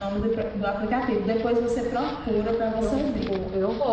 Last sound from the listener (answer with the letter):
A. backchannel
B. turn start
B